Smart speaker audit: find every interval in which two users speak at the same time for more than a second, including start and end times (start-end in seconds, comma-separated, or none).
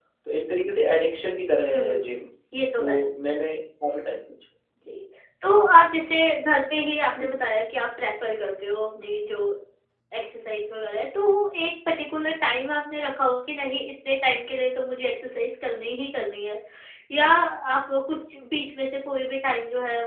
none